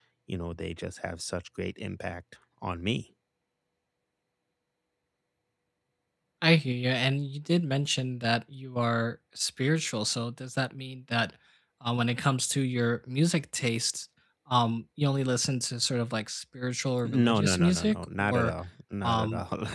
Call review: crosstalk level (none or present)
present